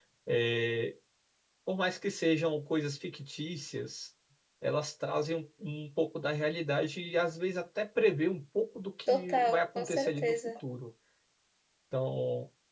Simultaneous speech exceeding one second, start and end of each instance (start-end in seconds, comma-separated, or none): 9.1-10.3